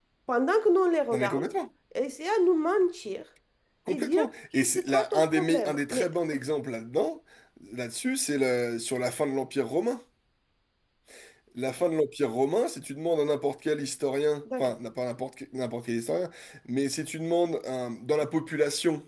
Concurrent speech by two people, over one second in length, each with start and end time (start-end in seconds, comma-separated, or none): 3.9-6.1